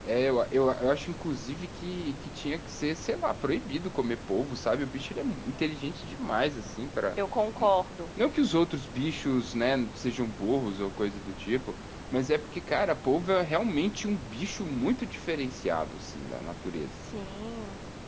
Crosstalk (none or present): none